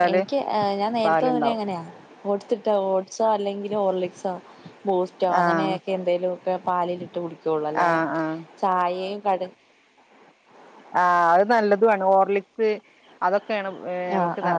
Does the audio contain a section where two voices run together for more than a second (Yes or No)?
No